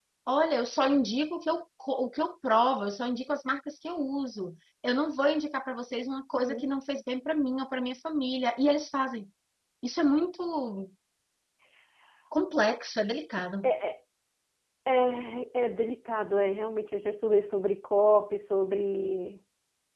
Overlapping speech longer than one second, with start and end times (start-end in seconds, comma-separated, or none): none